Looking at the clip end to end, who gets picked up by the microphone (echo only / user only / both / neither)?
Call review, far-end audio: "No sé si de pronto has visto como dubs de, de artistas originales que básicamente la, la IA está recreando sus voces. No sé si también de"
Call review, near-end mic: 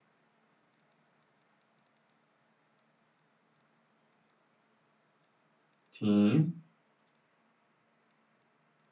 user only